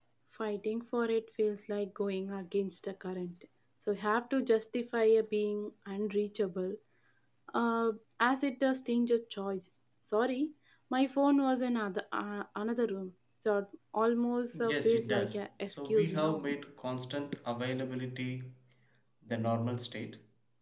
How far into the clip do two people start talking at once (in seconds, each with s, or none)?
14.5 s